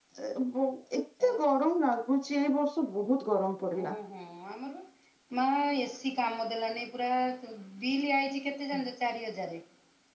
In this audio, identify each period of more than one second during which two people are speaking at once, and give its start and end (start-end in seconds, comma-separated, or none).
none